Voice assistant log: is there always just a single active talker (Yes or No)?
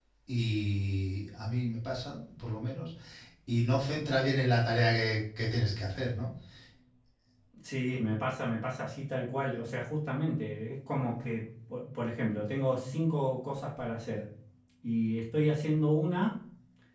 Yes